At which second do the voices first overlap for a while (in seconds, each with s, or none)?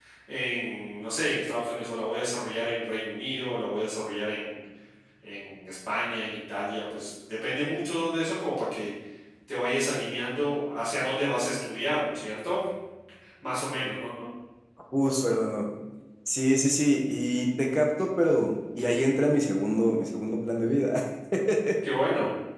none